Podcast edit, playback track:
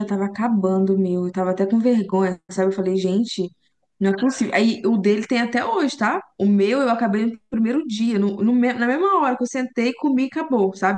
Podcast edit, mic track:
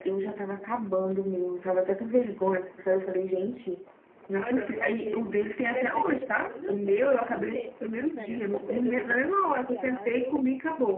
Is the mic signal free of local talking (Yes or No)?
No